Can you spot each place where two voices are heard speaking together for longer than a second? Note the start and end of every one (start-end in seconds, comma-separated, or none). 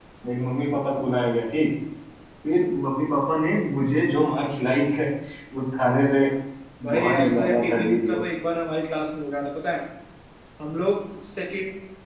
6.9-8.2